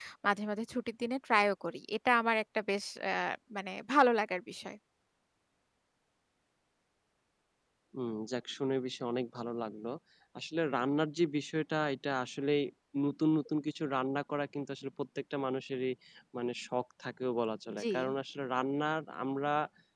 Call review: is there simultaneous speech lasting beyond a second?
No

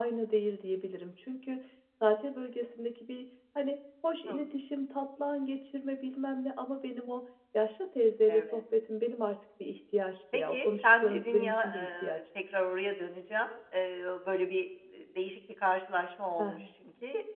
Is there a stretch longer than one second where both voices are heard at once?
Yes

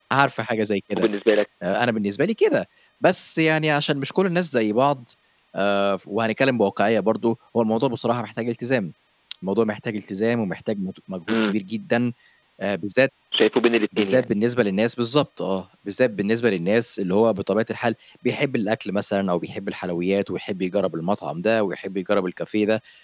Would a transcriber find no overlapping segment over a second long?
Yes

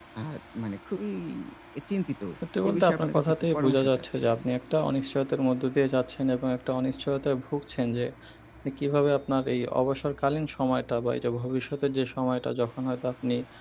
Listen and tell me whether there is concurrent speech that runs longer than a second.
Yes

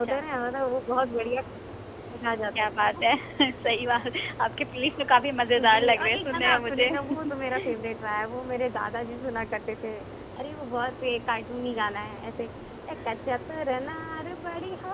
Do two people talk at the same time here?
Yes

